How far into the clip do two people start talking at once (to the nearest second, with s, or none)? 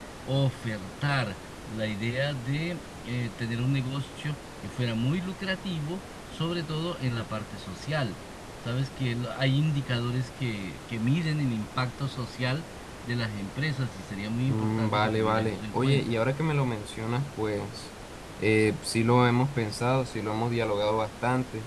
14 s